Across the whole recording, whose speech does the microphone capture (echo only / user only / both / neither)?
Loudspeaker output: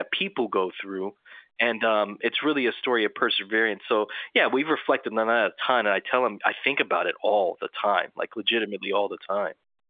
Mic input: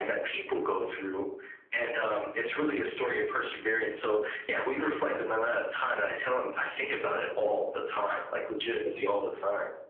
echo only